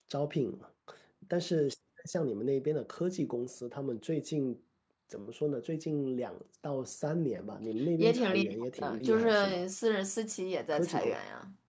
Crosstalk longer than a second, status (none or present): present